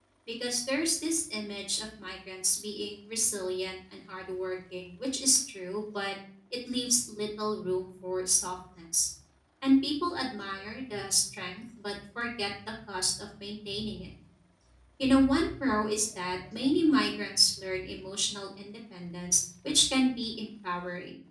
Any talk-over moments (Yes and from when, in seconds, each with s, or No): No